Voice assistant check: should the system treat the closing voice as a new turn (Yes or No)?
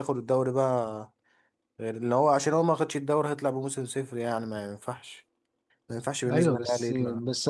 Yes